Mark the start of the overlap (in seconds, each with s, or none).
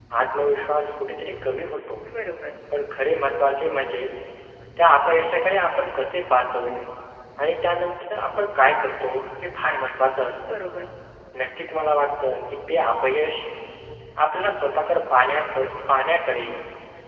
none